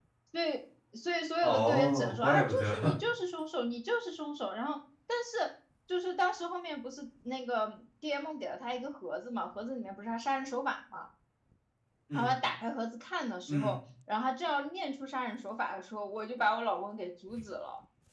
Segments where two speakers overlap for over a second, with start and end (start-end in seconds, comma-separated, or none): 1.4-2.7